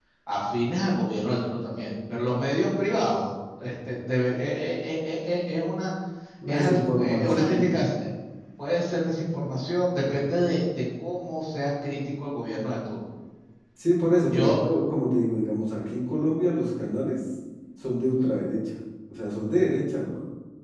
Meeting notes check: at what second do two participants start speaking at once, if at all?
6.5 s

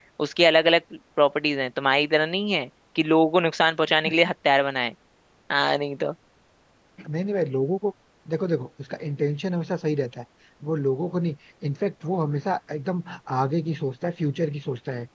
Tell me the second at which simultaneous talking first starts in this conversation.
none

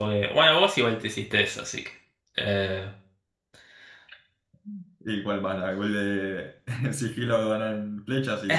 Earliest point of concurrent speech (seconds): none

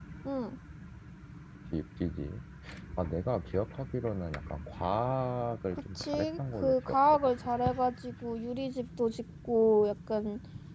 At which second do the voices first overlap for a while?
5.7 s

